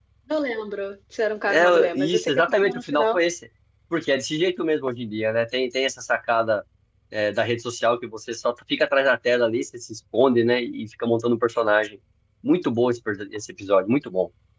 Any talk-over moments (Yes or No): Yes